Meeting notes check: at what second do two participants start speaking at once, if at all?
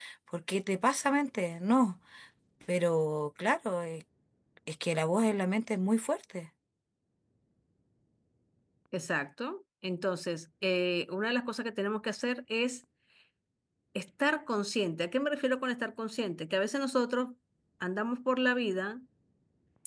none

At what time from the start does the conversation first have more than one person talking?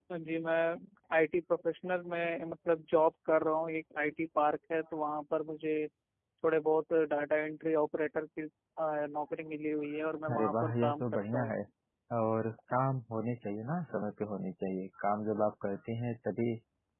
10 s

